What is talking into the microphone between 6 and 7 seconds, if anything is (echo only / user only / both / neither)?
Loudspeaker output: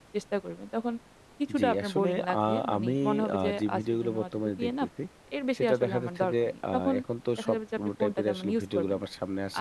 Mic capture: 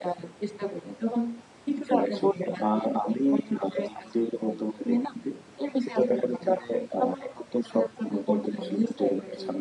echo only